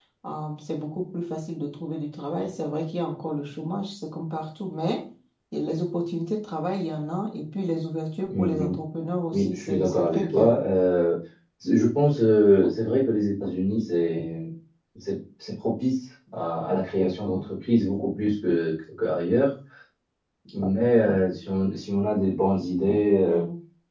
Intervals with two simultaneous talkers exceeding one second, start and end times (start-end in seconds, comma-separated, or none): 9.3-10.6